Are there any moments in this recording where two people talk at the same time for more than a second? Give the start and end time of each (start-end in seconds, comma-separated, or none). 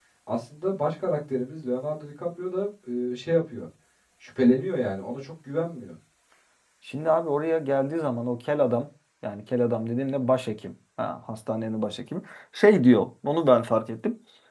none